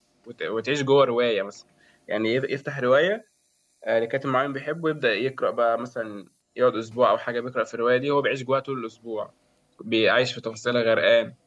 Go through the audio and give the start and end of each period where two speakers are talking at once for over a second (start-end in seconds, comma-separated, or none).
none